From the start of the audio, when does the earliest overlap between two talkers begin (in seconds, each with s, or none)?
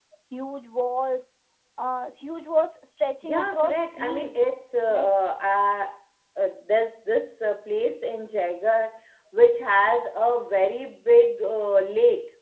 3.2 s